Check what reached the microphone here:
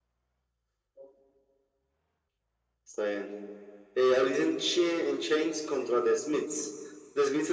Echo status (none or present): present